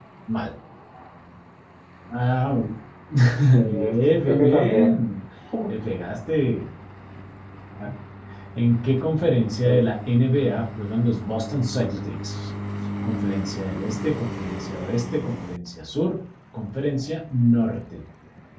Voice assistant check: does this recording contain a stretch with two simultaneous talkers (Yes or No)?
Yes